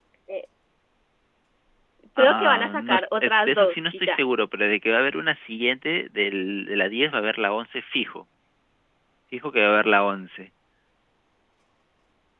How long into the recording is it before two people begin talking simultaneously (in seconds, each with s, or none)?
2.2 s